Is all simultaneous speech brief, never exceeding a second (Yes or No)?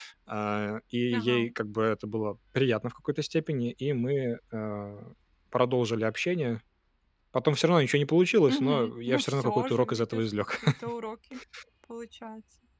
No